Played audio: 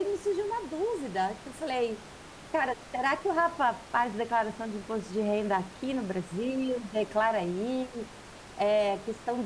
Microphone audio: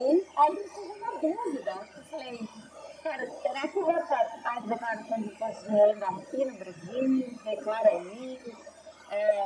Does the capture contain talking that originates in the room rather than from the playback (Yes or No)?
No